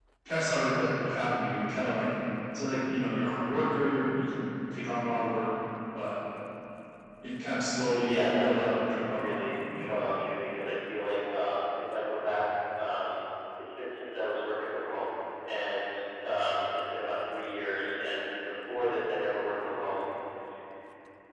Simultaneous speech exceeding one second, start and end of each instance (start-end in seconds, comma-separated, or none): 8.0-10.0